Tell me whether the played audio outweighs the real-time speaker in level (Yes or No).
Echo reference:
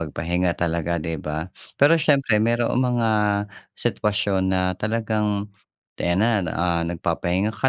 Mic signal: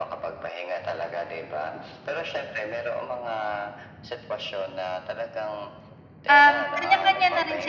No